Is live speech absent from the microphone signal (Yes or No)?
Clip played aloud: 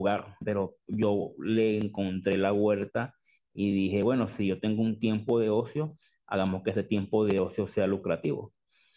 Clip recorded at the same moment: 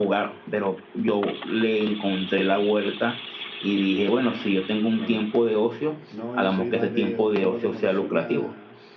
No